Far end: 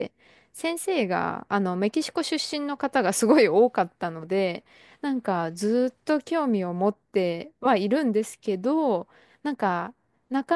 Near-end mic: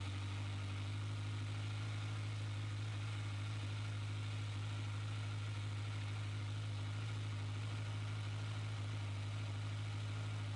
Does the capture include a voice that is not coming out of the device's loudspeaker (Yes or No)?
No